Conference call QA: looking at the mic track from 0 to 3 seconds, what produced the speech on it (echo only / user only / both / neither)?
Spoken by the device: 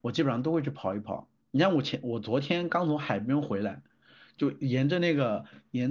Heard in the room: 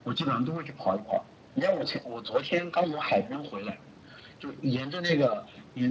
echo only